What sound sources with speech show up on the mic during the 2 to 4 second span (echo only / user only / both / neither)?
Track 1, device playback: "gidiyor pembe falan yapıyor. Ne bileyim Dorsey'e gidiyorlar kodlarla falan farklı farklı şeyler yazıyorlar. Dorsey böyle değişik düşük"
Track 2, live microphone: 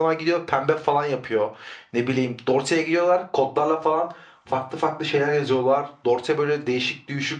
echo only